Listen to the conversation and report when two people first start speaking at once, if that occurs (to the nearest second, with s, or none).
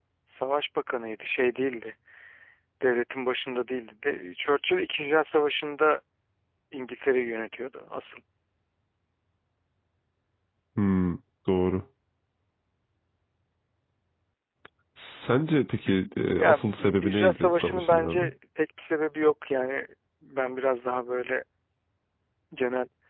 16 s